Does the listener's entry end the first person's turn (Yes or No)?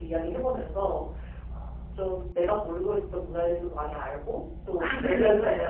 No